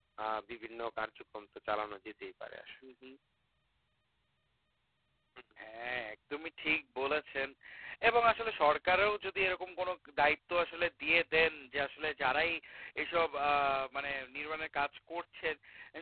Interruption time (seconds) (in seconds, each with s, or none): none